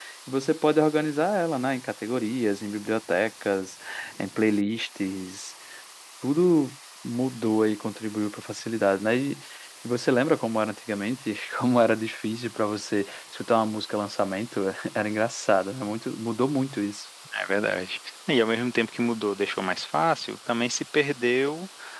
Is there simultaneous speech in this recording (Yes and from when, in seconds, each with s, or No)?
No